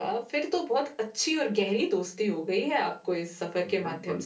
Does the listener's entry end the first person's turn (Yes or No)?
Yes